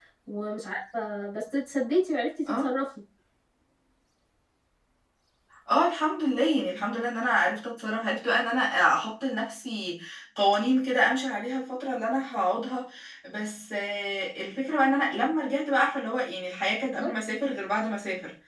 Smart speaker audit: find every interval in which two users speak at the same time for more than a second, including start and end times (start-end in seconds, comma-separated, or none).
none